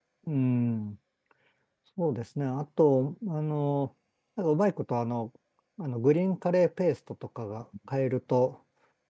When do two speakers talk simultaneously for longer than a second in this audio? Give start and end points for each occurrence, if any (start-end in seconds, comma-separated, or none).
none